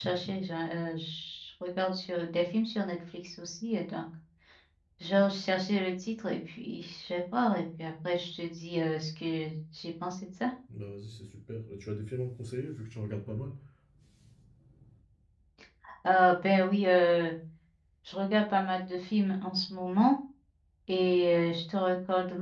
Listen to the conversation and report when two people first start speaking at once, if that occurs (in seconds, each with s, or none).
none